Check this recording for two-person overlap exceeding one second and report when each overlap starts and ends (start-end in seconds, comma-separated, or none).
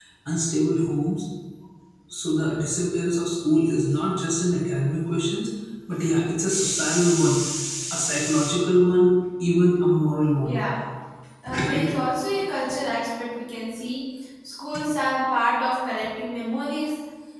none